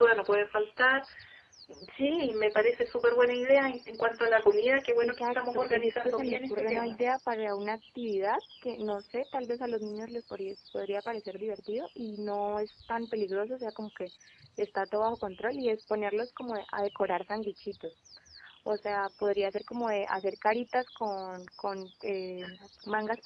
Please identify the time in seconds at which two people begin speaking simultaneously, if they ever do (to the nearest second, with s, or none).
5 s